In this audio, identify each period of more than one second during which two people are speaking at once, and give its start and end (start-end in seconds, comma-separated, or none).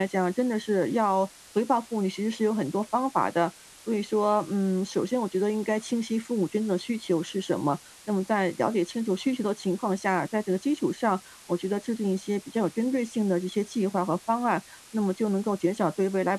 none